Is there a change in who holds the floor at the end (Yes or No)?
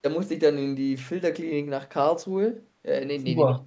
No